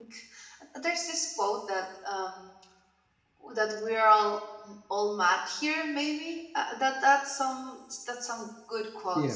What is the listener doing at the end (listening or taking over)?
listening